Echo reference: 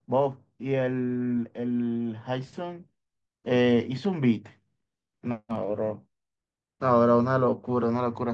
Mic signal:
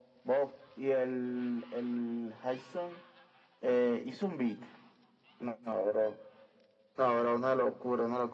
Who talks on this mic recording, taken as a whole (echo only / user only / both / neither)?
echo only